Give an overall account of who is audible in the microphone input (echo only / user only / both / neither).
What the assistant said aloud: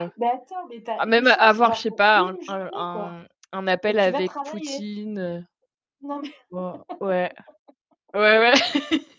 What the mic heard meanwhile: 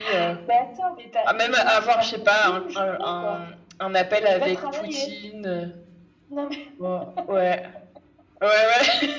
echo only